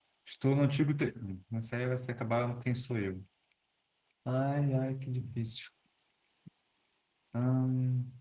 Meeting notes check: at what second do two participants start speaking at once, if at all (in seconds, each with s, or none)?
none